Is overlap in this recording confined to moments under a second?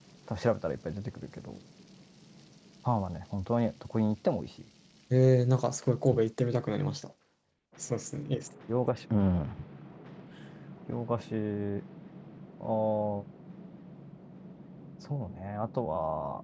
Yes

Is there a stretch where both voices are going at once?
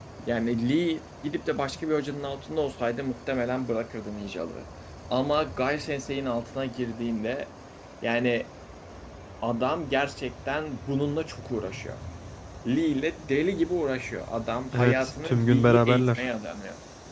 Yes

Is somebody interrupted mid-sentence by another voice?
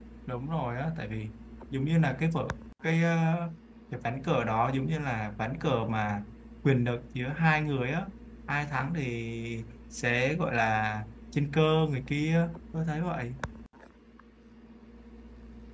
No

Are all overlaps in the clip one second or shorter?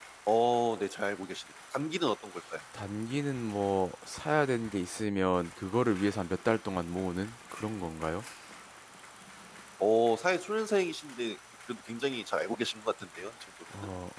Yes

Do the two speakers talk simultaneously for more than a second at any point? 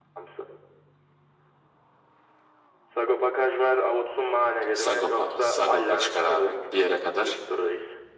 Yes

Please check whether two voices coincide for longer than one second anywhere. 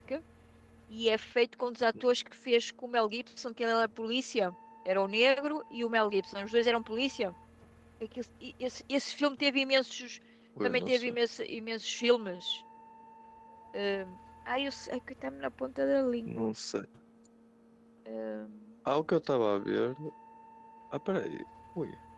No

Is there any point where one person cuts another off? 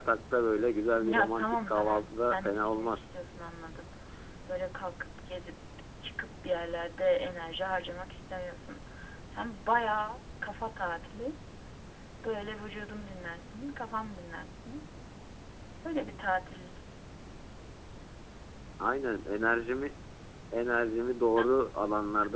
Yes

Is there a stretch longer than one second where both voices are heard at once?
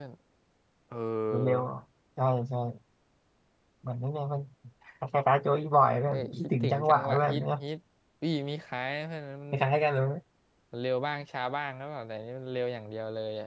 Yes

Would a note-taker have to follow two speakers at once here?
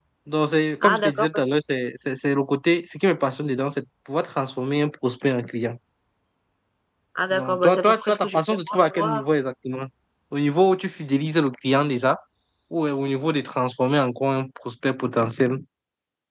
Yes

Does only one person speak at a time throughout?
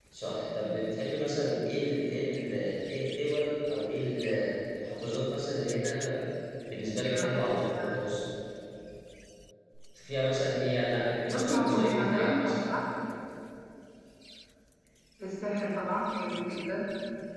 No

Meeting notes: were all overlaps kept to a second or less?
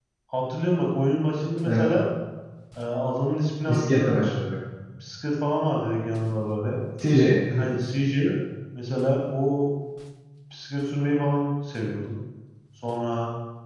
Yes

